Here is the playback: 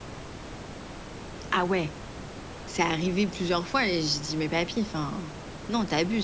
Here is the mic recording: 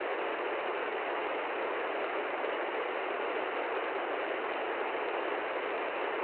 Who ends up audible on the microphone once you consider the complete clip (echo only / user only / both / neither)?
neither